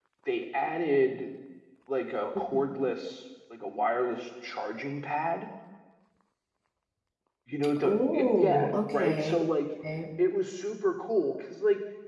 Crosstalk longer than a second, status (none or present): present